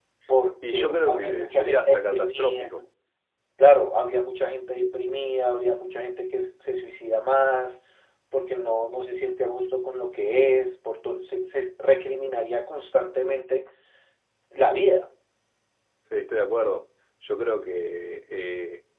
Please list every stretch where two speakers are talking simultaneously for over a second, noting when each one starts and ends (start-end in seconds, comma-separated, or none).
0.7-2.7